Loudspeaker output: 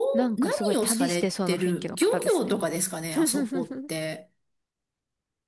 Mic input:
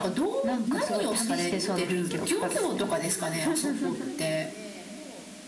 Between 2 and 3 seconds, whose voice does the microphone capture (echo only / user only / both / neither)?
both